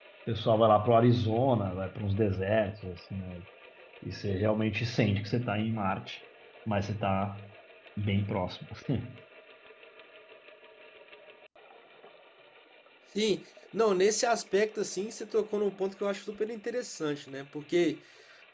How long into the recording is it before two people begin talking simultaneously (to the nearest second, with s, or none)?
none